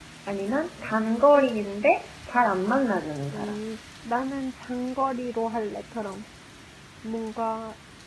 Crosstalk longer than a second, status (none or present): none